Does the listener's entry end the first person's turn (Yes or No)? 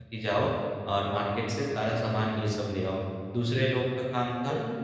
No